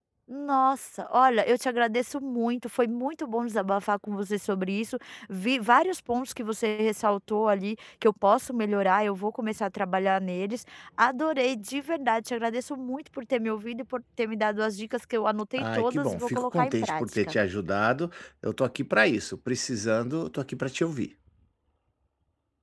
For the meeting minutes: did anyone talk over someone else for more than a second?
Yes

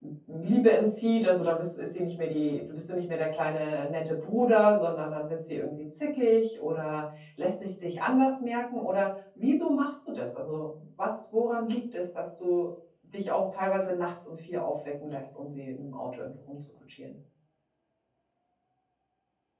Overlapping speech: No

